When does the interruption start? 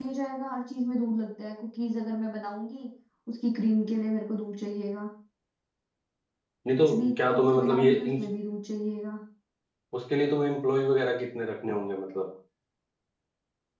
6.7 s

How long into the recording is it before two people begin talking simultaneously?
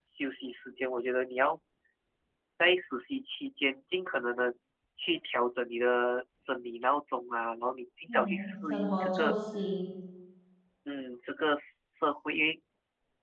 8.1 s

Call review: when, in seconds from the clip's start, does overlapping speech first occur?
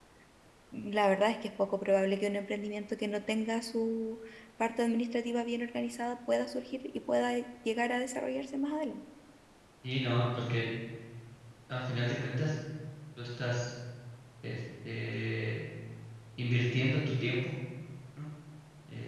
none

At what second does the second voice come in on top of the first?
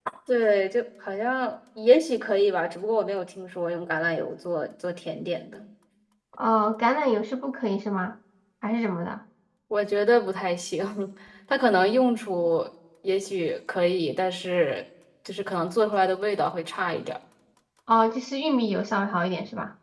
none

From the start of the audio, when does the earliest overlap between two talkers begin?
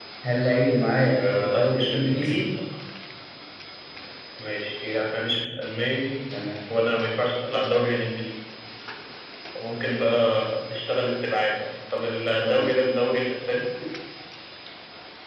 1.1 s

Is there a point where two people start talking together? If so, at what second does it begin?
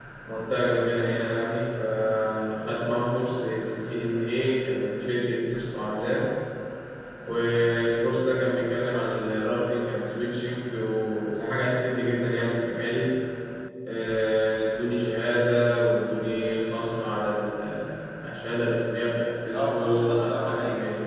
19.5 s

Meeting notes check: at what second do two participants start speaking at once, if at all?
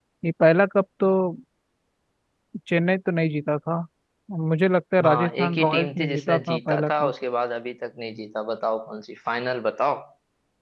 5.0 s

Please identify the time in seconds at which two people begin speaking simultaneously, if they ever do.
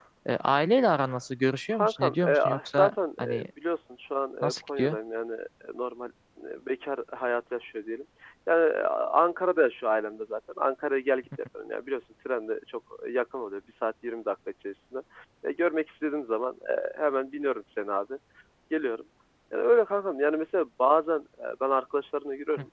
1.7 s

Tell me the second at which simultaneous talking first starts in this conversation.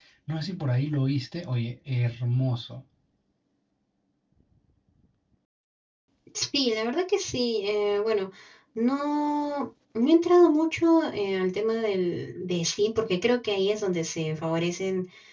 none

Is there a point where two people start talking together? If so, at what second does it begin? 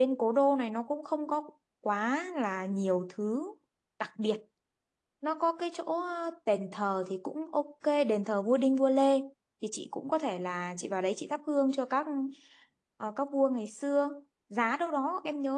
none

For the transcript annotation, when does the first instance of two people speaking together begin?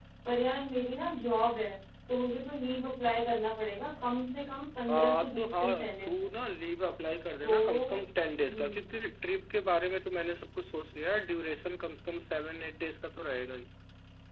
4.9 s

